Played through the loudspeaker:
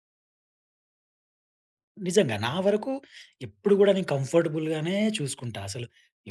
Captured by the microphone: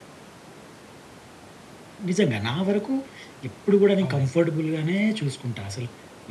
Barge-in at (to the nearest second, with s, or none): 4 s